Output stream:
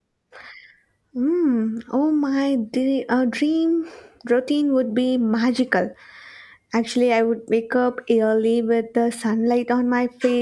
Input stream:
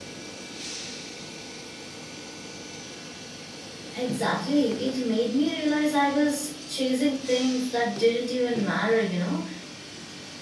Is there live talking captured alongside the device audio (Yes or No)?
Yes